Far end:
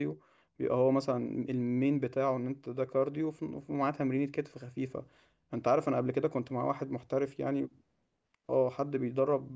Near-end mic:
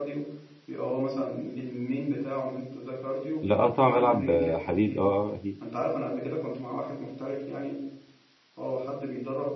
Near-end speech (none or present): present